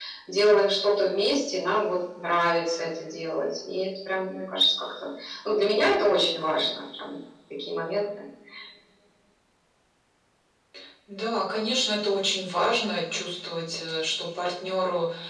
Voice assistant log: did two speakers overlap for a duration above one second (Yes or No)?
No